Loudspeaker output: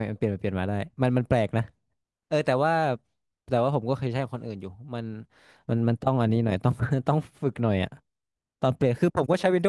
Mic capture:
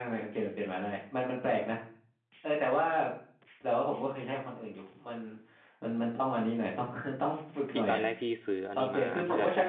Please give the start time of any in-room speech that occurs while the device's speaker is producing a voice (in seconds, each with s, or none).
7.7 s